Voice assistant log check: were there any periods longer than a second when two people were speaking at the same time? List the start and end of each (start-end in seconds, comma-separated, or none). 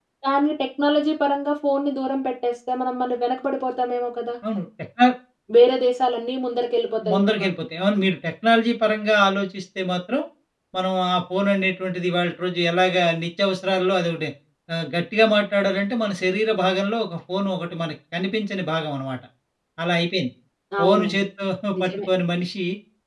none